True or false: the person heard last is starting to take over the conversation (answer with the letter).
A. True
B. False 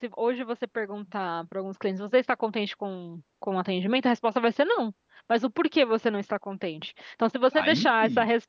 B